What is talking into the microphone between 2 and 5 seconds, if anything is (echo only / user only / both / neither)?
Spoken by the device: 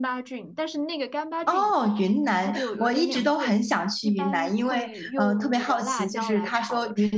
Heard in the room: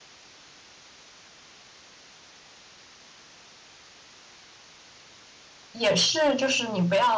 neither